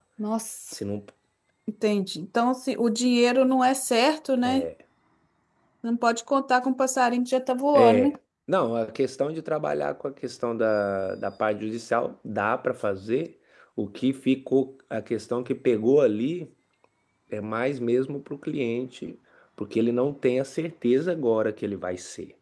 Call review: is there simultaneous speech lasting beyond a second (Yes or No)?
No